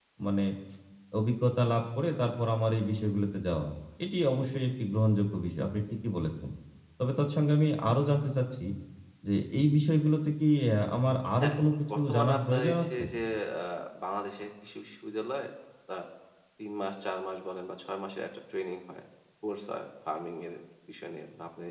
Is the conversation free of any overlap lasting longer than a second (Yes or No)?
No